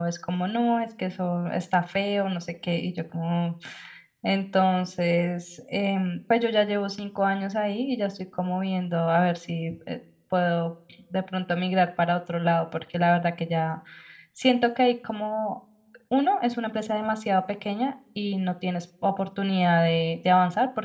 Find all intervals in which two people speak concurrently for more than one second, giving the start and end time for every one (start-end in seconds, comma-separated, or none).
none